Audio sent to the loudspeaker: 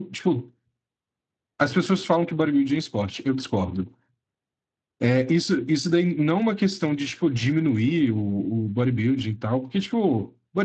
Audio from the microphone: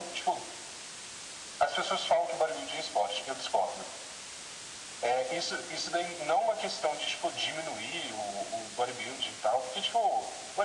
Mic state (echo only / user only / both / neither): echo only